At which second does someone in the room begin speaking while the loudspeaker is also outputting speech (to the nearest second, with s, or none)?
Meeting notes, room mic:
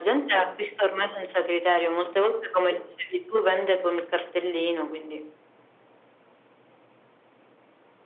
none